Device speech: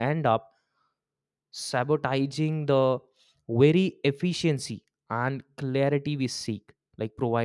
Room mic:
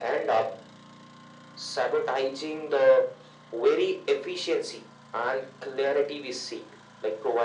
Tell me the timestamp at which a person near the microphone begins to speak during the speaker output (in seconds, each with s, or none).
none